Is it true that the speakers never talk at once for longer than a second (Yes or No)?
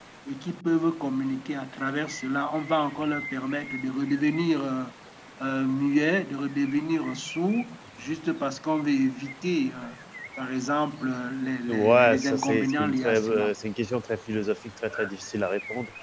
No